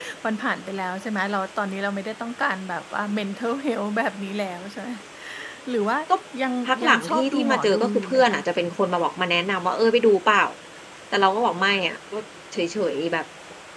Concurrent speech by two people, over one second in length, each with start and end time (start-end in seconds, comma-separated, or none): 6.7-8.4